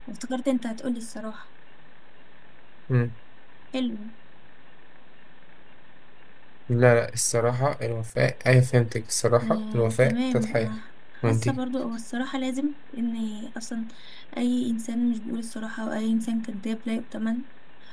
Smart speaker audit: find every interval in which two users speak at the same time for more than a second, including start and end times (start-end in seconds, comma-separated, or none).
9.4-10.8